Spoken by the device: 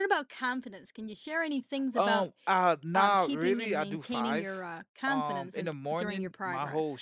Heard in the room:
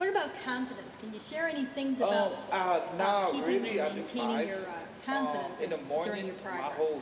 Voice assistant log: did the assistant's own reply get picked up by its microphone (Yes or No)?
Yes